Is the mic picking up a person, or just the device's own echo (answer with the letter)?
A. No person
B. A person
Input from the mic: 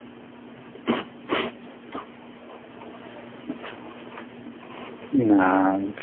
B